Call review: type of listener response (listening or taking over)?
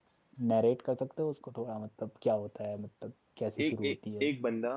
taking over